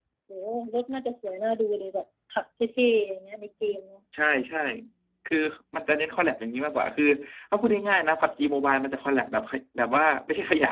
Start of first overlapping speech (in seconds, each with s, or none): none